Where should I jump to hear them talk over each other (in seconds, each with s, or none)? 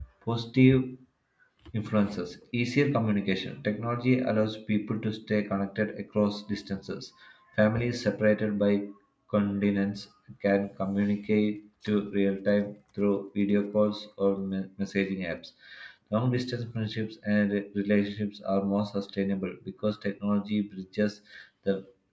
none